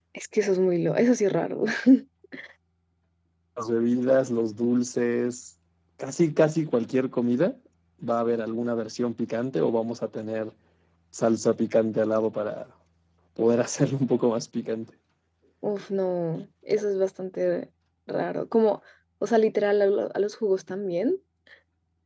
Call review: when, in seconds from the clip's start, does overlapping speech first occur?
none

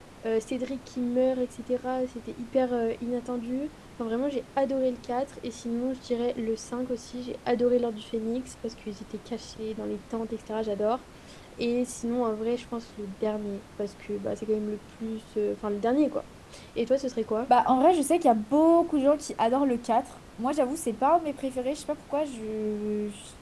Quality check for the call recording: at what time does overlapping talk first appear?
none

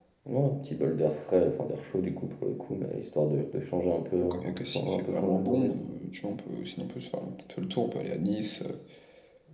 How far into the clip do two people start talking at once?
4.2 s

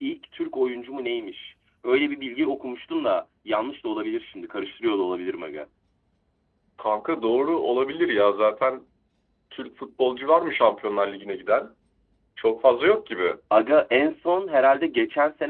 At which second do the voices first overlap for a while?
none

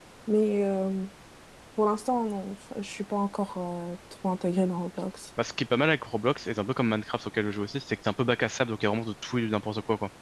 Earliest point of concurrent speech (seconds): none

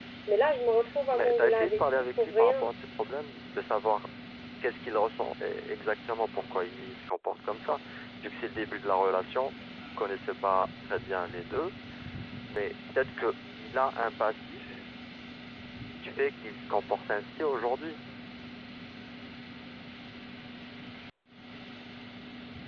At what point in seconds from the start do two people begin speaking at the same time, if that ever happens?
1.1 s

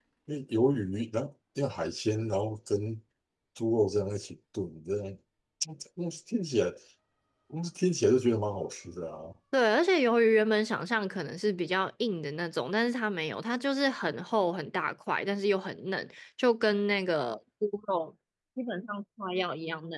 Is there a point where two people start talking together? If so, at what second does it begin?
none

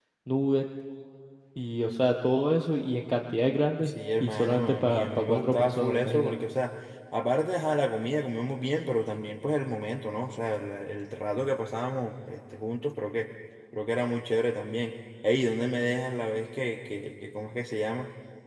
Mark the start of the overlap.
3.9 s

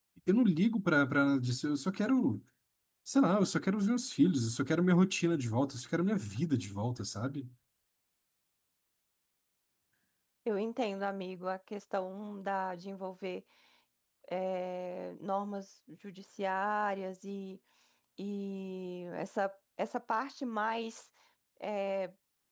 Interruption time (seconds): none

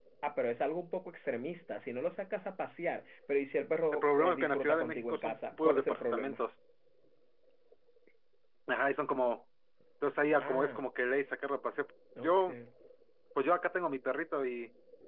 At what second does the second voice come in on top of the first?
3.9 s

